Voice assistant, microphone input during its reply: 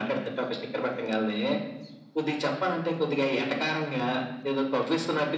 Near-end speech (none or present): none